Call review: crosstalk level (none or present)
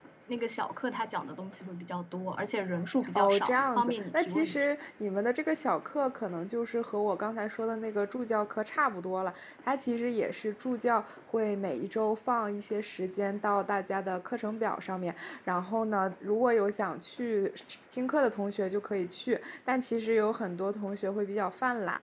present